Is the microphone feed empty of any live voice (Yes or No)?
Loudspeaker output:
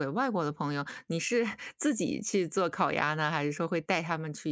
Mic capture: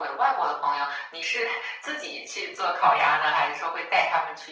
Yes